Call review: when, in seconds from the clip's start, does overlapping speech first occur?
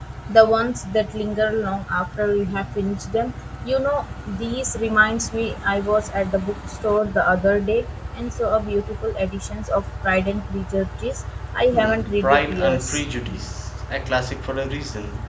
11.7 s

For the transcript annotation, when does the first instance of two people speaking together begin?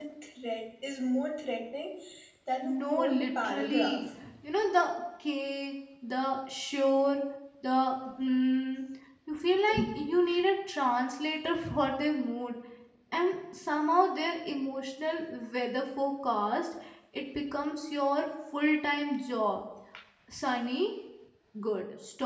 2.6 s

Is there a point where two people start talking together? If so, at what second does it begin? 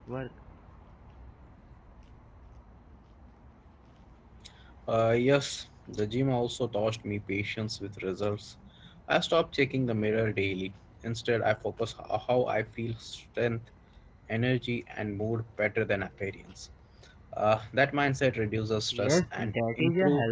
18.9 s

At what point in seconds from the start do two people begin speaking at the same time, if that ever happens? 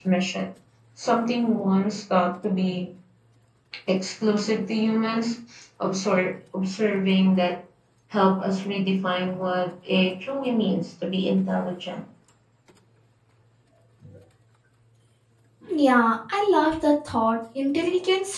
none

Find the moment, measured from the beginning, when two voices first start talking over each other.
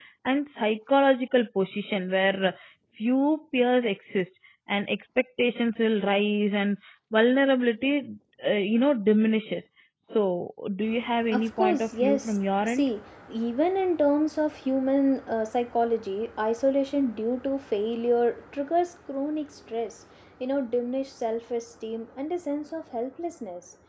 11.3 s

